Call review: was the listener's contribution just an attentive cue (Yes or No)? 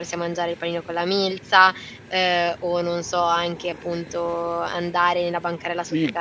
No